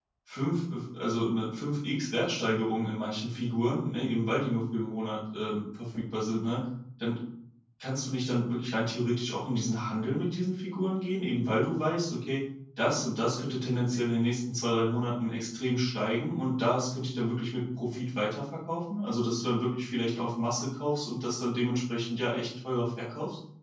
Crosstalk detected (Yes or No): No